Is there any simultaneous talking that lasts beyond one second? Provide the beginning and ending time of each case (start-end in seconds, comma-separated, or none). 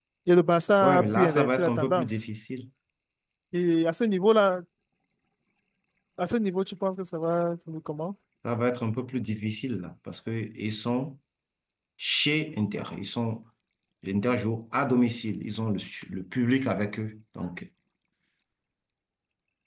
0.8-2.2